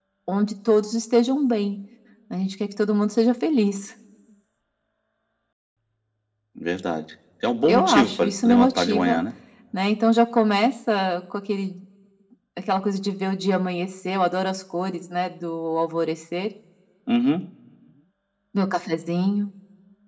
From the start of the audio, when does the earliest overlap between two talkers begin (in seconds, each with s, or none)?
7.7 s